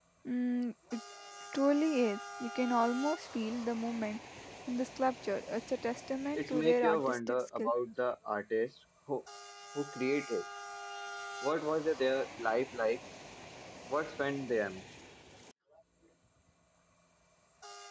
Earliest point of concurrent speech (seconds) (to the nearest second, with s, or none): 6 s